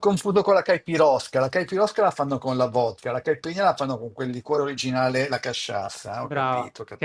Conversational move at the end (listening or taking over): taking over